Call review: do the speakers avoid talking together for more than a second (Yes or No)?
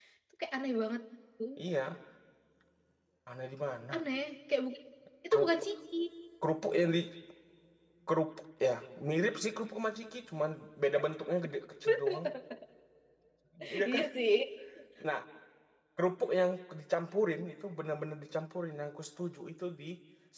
Yes